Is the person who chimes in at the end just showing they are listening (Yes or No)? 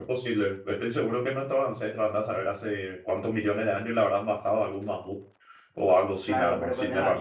No